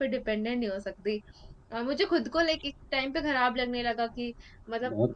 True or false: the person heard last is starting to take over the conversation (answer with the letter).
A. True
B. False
B